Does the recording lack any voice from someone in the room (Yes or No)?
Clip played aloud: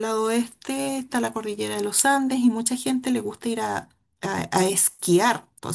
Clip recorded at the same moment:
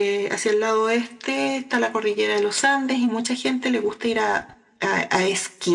Yes